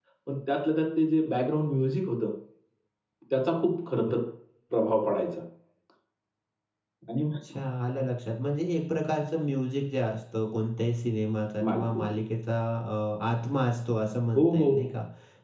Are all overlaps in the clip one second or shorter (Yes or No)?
Yes